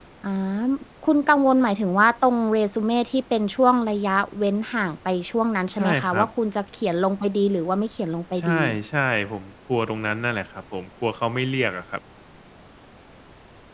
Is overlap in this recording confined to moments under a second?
Yes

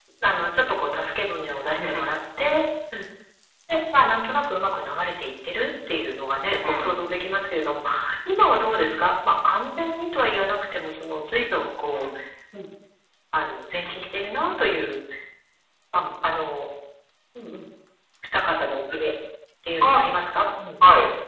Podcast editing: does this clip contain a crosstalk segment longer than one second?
No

